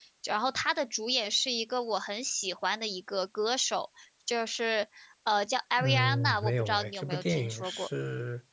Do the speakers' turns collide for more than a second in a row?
Yes, from 5.8 s

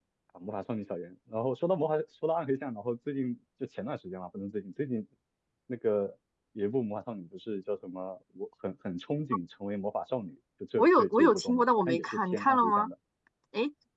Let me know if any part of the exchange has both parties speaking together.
Yes, from 10.8 s

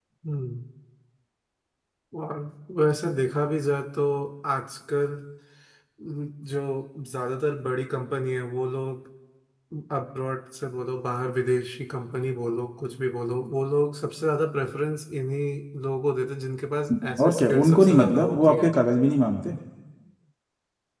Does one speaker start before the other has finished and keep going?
Yes, from 17.2 s

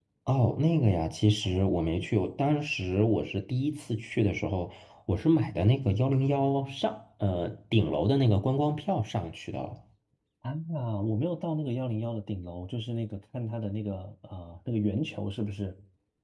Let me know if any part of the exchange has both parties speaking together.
No

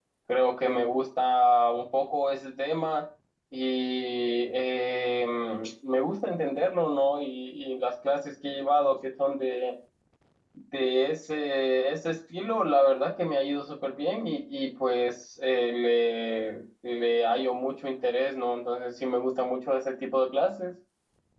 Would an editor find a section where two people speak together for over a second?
No

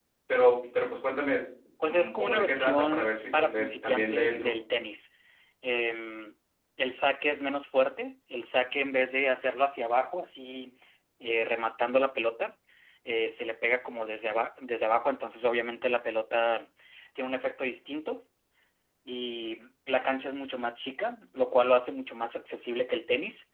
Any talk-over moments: Yes, from 1.8 s

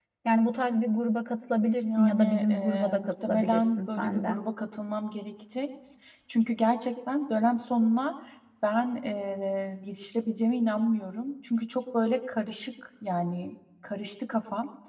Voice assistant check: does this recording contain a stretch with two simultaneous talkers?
Yes, from 1.8 s

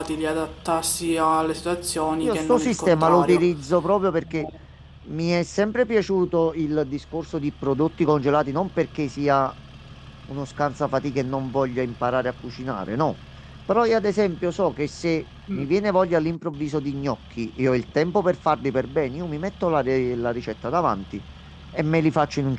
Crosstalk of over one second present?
Yes, from 2.2 s

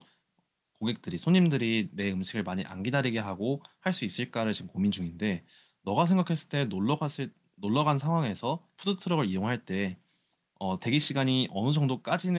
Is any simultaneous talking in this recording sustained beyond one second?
No

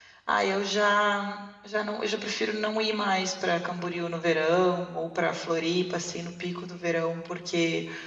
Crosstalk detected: No

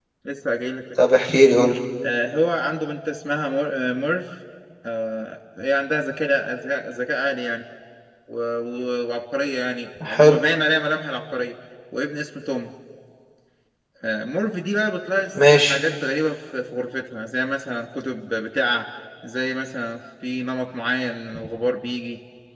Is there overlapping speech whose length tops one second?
No

